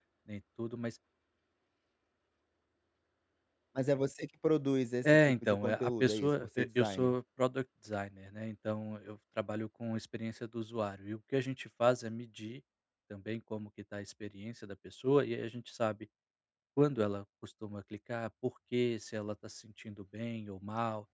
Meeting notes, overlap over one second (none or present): present